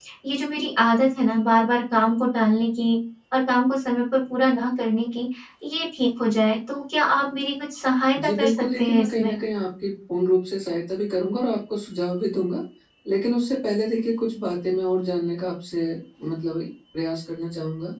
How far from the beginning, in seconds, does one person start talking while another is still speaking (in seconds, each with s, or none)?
8.2 s